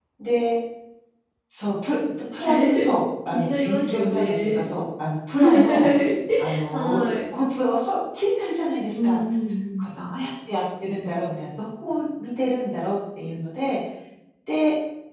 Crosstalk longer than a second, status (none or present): present